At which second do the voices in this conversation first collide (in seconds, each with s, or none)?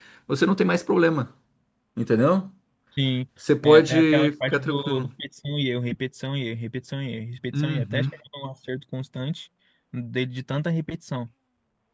3.6 s